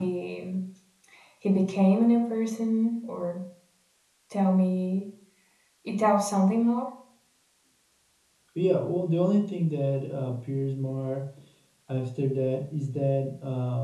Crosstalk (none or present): none